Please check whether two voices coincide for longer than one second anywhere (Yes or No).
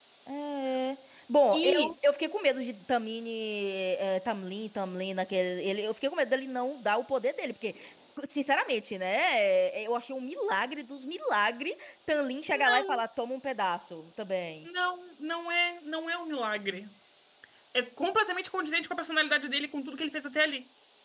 No